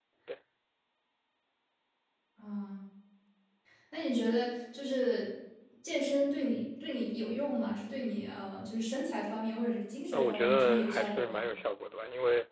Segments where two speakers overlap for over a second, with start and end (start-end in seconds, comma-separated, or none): 10.1-11.4